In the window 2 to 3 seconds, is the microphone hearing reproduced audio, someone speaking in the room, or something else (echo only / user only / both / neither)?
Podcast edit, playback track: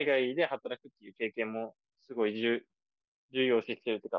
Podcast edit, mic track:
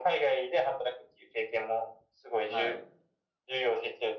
both